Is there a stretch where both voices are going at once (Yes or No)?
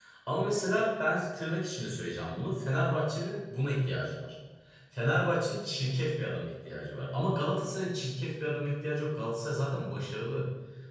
No